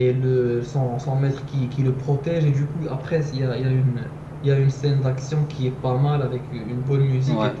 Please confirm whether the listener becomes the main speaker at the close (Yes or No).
No